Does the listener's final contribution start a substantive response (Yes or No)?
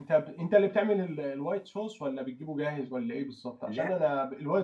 No